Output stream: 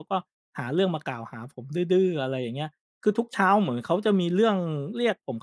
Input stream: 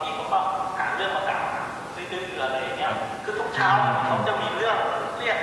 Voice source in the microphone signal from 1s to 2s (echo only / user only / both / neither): echo only